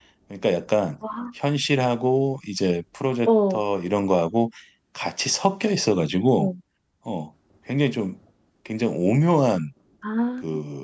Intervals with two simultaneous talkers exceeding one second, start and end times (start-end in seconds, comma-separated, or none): none